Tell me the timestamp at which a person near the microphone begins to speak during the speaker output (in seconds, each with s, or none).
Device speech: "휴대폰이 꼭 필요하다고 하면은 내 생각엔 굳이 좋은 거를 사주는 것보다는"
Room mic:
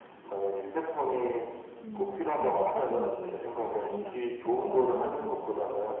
1.8 s